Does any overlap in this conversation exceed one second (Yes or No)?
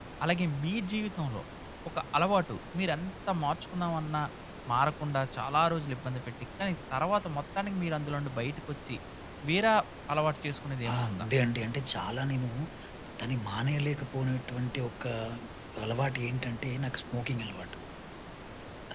No